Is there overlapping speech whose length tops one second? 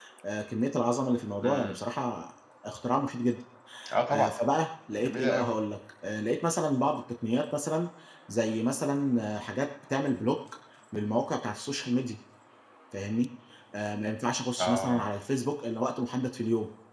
No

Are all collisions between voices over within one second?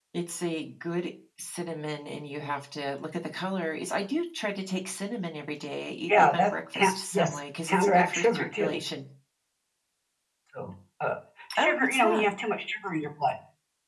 No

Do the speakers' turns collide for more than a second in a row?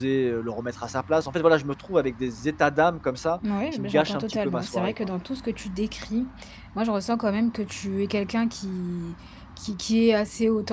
Yes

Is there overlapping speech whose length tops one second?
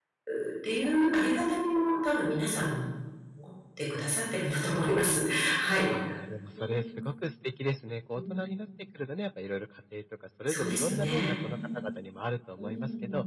Yes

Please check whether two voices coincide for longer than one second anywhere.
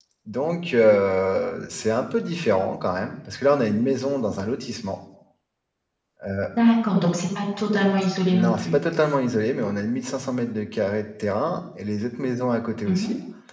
No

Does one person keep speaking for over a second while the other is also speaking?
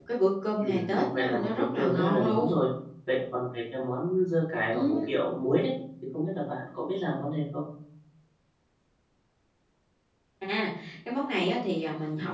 Yes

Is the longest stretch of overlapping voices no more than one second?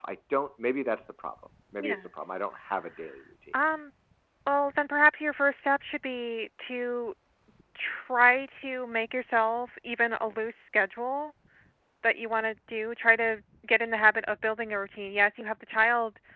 Yes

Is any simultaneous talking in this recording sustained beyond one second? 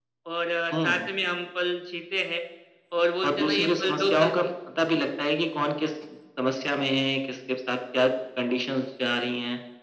Yes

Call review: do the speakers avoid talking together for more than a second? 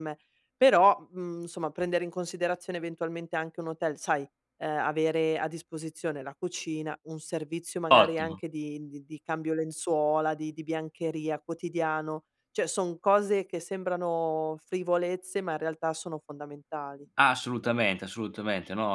Yes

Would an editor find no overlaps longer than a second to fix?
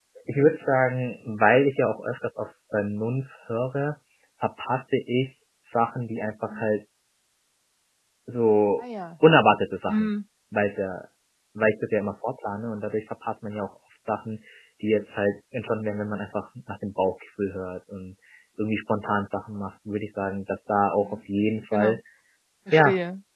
Yes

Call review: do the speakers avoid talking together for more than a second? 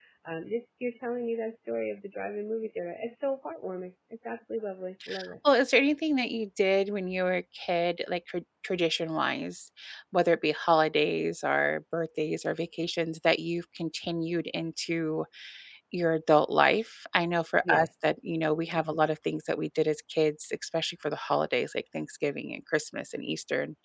Yes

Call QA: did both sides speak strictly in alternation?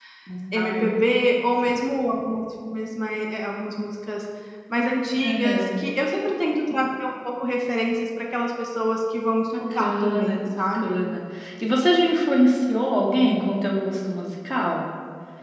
No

